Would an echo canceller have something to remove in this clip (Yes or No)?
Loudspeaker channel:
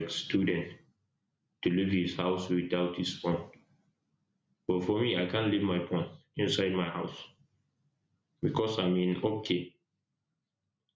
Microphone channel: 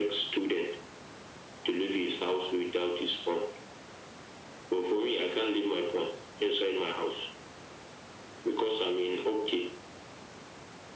Yes